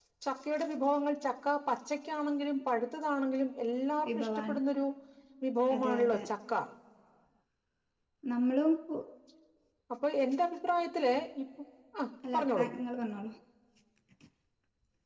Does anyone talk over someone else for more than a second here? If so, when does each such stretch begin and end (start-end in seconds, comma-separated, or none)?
none